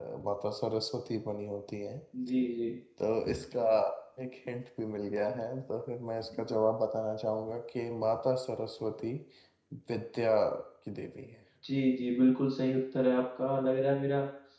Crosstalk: none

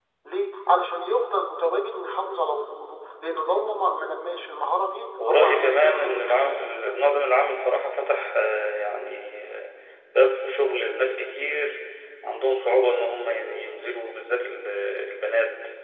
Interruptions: present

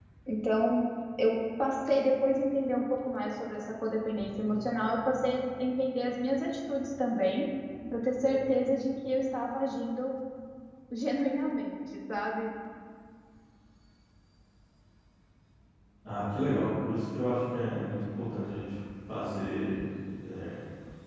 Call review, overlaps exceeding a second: none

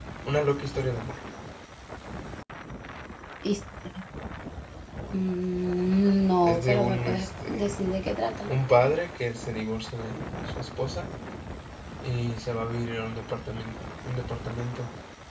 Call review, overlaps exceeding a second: present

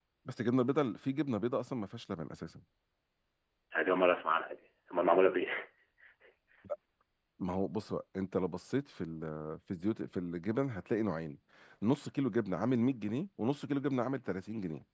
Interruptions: none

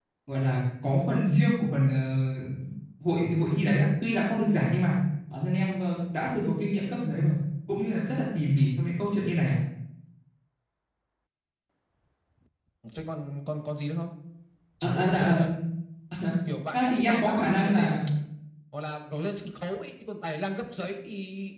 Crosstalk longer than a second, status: present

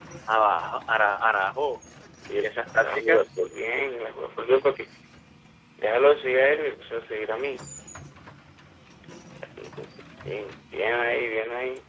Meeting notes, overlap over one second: none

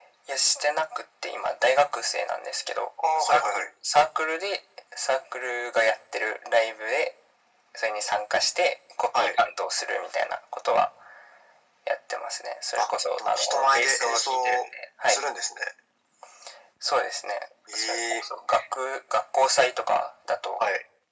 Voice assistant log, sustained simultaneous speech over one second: present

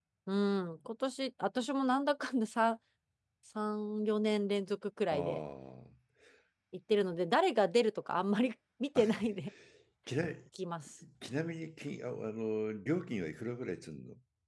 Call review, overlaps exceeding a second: none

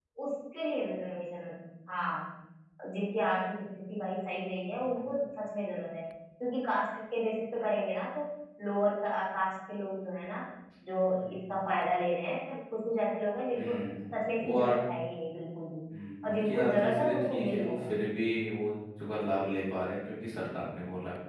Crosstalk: present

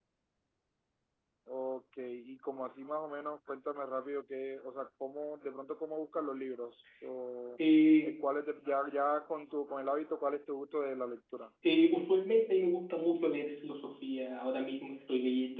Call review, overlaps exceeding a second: none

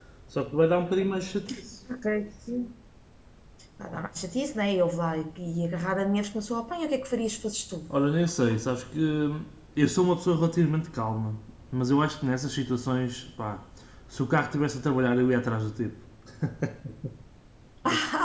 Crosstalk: none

